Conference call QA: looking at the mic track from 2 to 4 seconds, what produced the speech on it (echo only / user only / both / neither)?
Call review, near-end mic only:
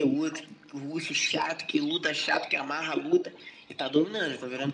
echo only